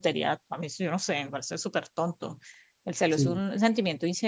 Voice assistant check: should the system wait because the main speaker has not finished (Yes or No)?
Yes